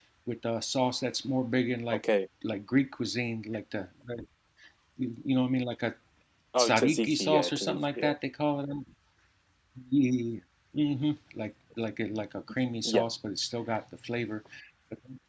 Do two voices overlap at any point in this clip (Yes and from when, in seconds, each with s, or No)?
Yes, from 6.6 s